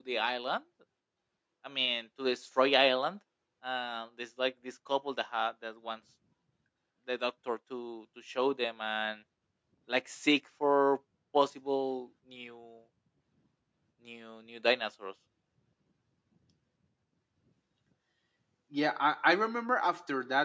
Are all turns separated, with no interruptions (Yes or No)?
Yes